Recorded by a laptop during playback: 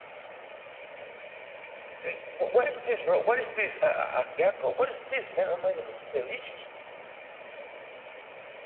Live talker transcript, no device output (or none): none